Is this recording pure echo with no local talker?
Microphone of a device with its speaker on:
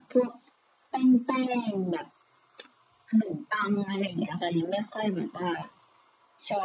Yes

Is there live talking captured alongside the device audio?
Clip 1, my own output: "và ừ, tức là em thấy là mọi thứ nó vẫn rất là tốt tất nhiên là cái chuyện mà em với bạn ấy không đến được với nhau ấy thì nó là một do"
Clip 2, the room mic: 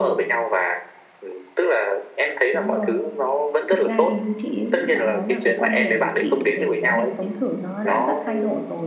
Yes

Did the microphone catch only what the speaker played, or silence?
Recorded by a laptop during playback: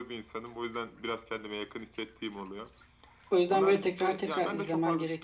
No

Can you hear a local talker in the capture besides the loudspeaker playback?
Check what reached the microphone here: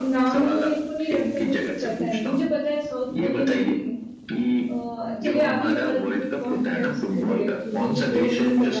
Yes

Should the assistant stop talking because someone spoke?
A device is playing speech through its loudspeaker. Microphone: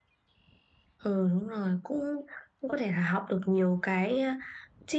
No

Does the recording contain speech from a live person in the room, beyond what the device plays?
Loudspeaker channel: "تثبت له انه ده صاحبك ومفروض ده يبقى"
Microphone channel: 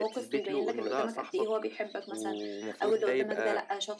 Yes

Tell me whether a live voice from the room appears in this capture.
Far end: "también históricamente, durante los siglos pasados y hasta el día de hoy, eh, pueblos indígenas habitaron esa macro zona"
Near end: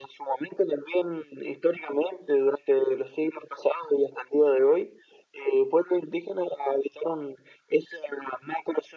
No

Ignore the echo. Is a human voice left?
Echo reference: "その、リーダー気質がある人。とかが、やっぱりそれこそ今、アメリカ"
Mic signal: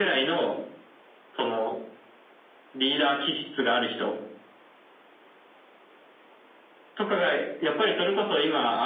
No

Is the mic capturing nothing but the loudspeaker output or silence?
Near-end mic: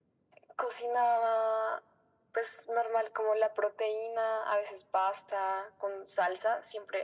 Yes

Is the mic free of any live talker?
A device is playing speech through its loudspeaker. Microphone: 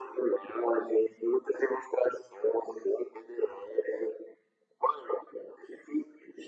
Yes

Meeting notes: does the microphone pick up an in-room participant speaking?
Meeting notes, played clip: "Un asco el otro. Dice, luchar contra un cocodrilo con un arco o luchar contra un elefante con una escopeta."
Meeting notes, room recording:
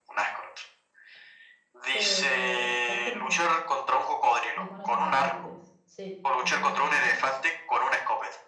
Yes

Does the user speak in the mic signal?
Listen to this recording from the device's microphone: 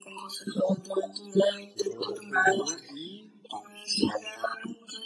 Yes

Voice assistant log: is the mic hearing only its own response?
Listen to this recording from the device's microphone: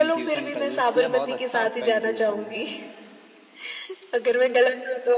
No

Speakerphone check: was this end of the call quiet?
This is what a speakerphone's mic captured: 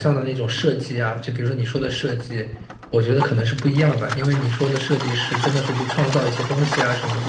Yes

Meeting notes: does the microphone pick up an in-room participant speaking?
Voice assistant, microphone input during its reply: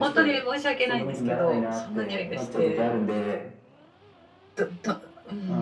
Yes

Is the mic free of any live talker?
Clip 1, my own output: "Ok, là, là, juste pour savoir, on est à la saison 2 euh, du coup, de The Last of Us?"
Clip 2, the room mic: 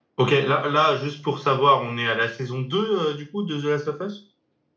Yes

